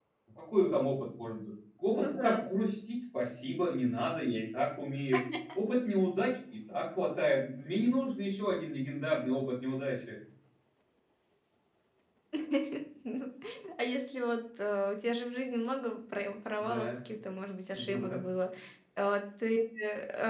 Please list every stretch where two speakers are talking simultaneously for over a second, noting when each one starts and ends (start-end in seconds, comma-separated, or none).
none